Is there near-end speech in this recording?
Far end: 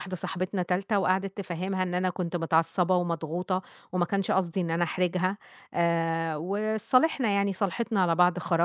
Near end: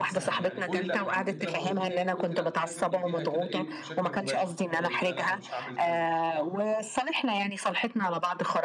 Yes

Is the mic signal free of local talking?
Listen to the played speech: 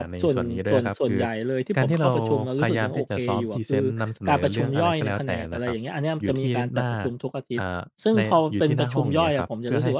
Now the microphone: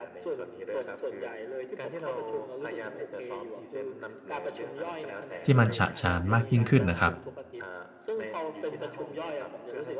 No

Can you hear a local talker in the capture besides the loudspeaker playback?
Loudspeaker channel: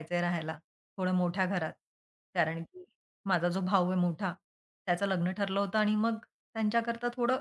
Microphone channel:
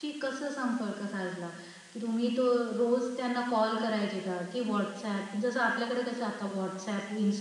Yes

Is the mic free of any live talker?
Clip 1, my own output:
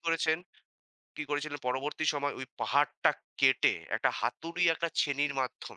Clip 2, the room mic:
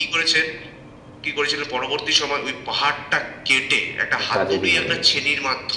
No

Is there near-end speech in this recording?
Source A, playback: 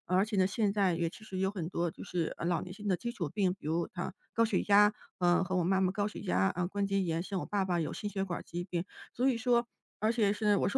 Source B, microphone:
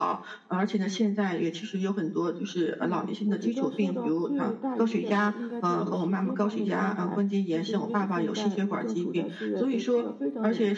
Yes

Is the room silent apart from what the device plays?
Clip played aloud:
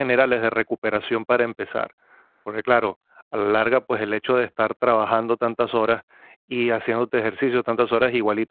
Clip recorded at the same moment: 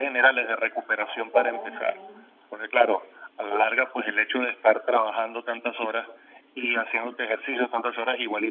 No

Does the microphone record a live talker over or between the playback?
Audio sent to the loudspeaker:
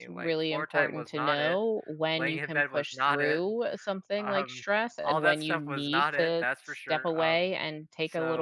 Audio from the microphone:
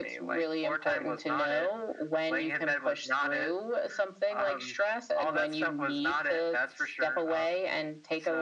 No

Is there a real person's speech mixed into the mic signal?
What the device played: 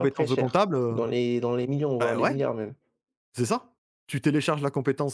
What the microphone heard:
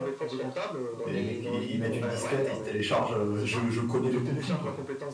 Yes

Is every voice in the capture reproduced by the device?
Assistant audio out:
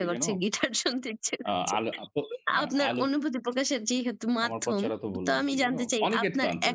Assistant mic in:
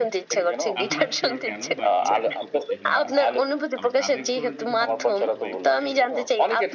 No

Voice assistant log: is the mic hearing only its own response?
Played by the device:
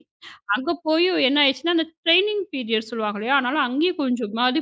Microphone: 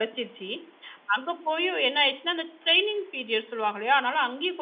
Yes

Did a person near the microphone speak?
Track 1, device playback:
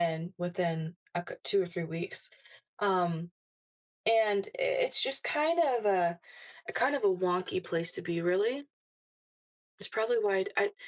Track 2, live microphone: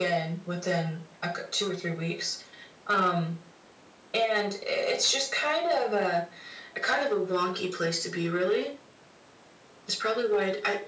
No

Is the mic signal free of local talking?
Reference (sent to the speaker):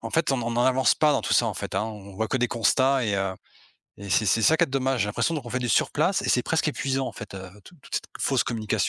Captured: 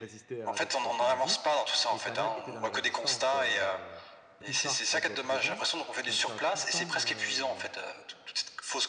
No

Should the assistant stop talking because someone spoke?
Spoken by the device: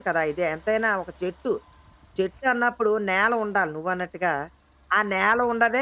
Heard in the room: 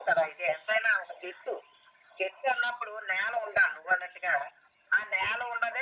No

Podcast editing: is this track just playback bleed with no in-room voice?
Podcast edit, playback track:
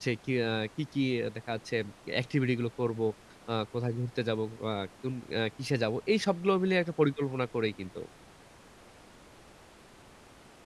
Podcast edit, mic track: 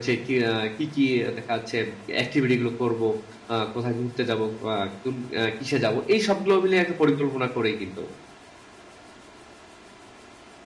Yes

